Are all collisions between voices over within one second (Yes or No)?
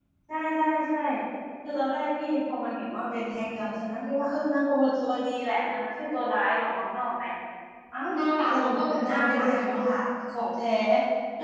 No